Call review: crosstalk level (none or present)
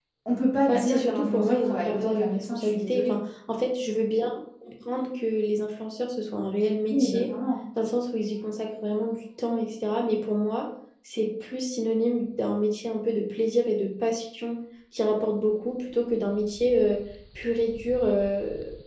present